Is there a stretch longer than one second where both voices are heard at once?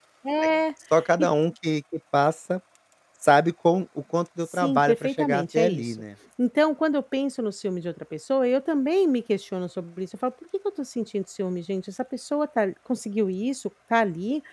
Yes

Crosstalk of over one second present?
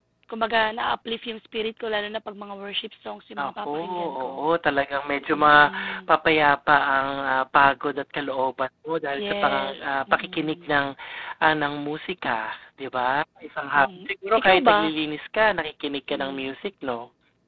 Yes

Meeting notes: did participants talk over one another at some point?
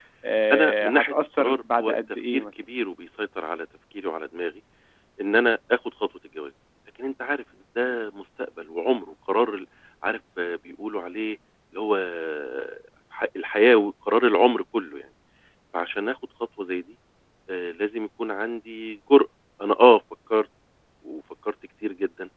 Yes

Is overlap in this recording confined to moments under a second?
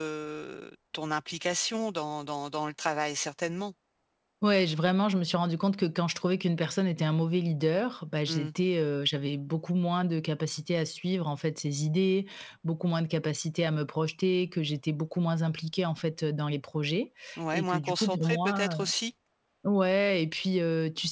No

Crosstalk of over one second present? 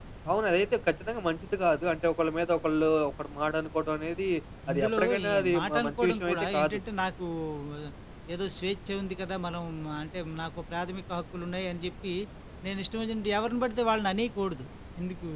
Yes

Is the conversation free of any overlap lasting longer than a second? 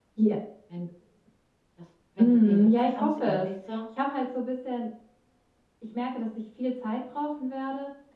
No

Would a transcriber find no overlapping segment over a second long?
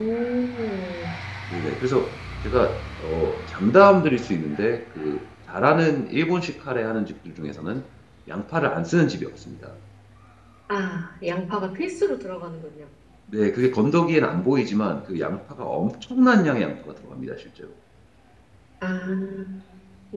Yes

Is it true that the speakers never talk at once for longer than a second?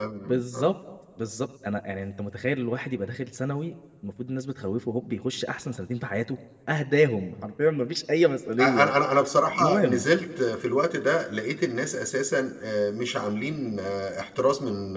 Yes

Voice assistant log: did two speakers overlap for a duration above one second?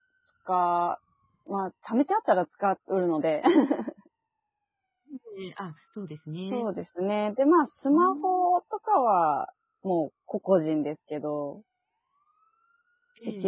No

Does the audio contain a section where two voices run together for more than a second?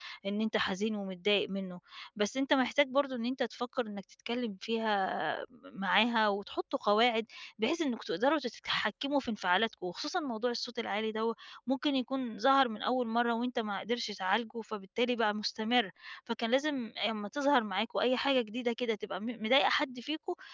No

